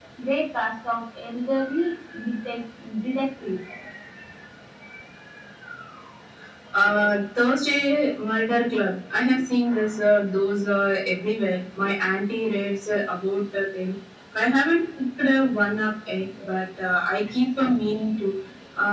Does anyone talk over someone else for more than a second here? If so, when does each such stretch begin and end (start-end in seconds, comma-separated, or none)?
none